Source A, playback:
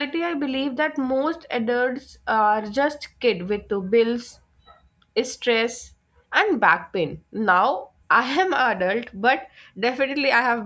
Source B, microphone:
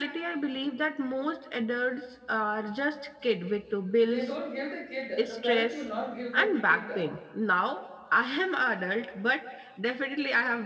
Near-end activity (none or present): present